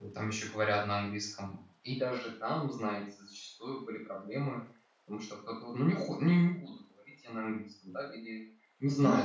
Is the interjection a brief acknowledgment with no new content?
No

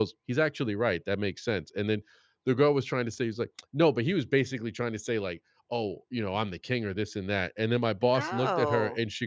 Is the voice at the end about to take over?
No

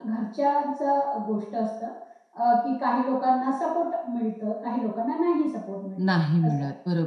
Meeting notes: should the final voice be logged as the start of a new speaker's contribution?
Yes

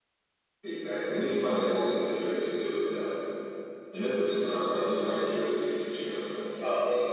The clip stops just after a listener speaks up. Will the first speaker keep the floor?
No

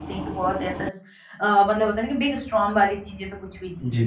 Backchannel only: No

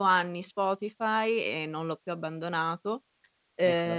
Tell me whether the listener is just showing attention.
Yes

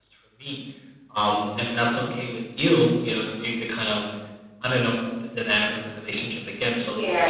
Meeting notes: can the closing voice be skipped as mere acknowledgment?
No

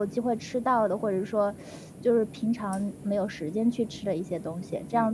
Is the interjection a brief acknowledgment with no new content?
No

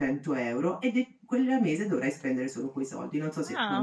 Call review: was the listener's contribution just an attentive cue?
No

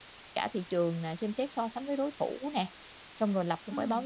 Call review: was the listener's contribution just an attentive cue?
Yes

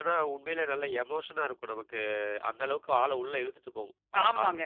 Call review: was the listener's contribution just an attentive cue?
No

